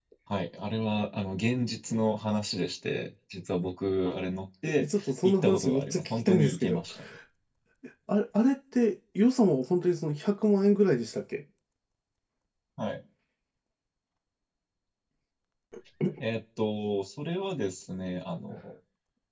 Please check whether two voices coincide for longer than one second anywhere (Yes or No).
Yes